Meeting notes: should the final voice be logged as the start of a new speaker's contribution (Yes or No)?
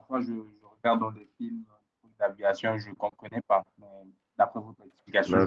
Yes